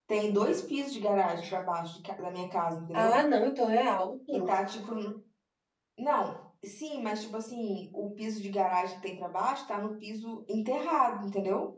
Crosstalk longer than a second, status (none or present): none